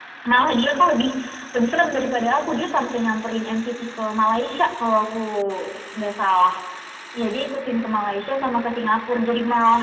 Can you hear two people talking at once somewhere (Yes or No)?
No